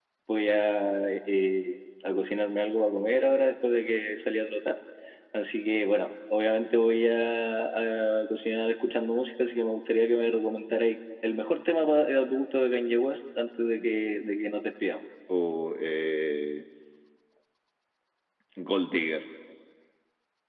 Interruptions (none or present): none